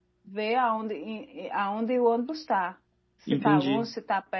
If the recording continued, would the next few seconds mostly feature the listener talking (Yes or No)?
No